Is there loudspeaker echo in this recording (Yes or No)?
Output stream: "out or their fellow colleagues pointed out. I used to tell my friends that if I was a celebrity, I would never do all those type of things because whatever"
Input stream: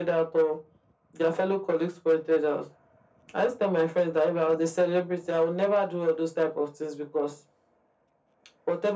Yes